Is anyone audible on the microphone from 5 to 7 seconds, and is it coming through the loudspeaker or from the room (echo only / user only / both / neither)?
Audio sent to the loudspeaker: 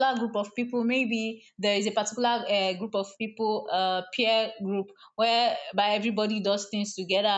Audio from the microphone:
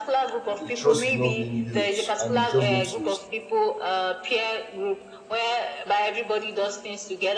echo only